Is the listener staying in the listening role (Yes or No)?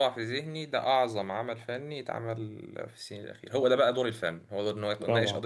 Yes